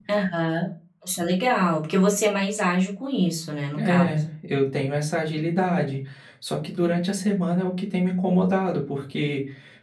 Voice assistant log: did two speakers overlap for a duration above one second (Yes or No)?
No